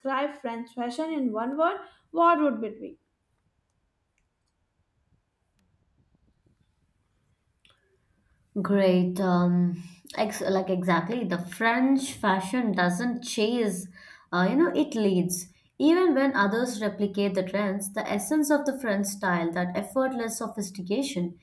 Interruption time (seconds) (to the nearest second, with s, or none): none